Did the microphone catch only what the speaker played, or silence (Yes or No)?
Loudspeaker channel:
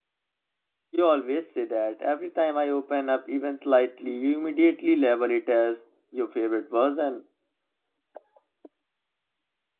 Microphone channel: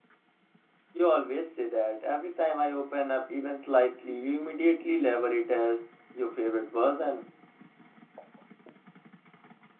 Yes